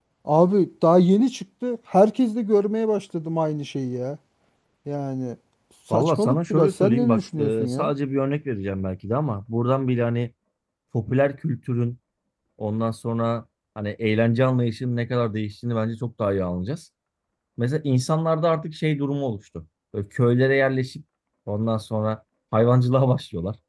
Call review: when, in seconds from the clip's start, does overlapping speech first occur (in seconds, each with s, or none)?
5.9 s